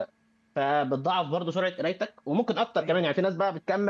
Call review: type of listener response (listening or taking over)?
listening